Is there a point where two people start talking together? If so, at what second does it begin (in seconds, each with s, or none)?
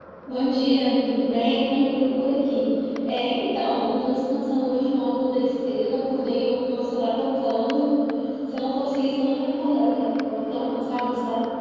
none